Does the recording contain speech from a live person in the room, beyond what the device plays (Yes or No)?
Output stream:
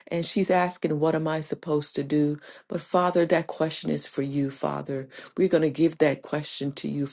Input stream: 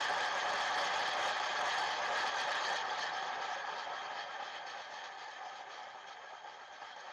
No